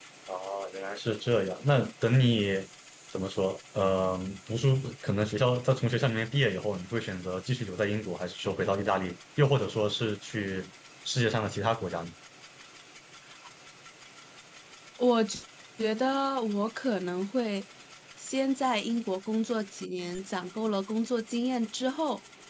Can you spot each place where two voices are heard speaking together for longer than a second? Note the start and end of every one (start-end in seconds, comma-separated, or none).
none